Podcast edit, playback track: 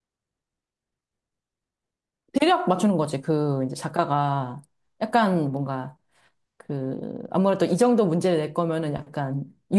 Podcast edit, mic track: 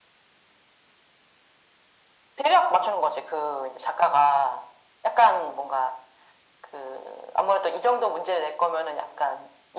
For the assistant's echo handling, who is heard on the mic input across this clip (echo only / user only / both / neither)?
echo only